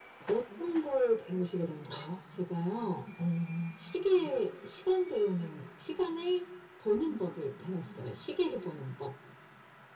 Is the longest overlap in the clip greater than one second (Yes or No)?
No